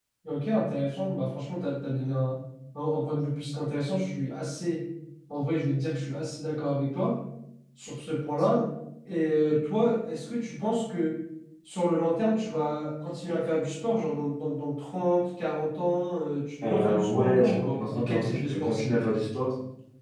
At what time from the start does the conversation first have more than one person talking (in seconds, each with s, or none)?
16.6 s